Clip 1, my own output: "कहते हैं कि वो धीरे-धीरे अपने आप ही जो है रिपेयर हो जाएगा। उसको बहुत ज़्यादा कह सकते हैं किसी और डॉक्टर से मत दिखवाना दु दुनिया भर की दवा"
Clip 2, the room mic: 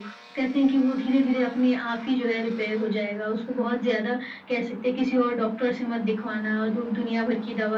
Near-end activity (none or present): none